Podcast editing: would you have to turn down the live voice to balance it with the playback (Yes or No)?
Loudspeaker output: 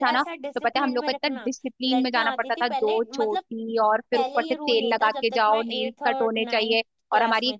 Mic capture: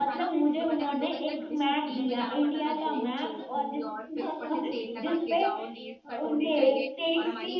Yes